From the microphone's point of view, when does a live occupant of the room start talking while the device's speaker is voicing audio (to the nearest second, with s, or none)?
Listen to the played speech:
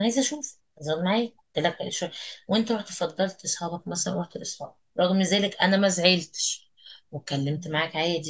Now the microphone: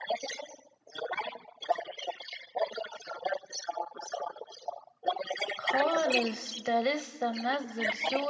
6 s